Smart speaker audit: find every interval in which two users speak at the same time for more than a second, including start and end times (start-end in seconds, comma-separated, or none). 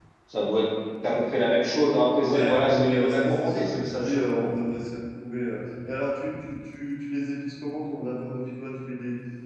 2.2-4.2